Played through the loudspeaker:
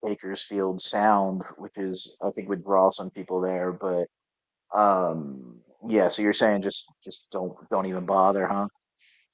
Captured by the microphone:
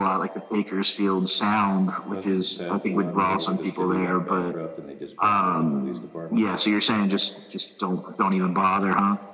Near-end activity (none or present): present